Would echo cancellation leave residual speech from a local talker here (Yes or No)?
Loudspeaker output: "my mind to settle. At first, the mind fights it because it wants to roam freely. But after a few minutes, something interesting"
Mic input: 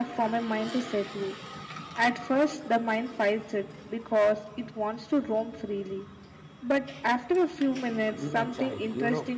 Yes